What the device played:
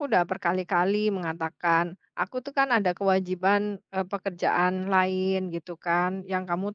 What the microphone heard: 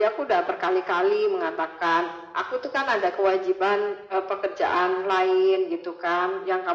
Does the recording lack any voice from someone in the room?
Yes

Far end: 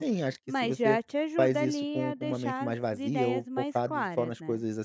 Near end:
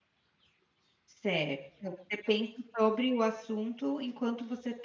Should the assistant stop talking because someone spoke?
Yes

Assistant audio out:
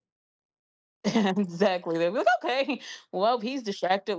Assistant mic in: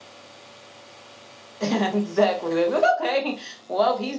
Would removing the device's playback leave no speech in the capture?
Yes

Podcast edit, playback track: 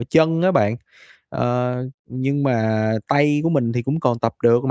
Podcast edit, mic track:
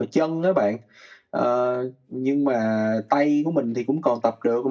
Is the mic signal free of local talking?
Yes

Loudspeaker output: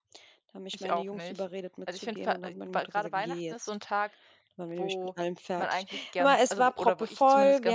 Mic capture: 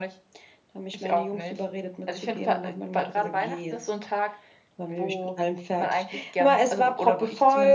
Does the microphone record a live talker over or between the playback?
No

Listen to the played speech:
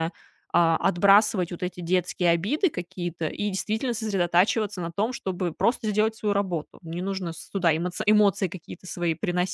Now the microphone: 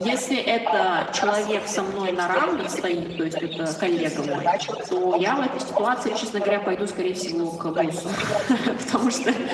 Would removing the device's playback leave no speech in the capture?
No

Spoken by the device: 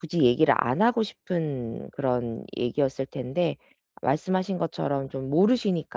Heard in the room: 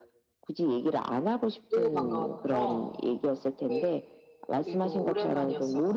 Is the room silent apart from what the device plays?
No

